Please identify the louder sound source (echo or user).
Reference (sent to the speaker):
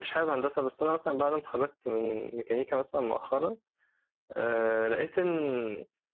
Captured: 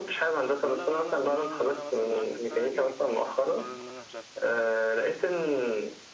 echo